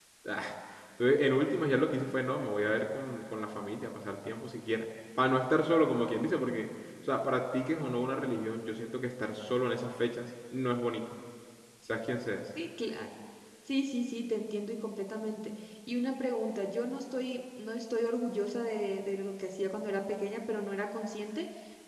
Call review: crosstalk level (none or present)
none